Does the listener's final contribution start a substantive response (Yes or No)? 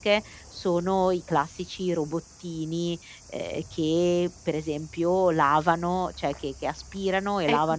Yes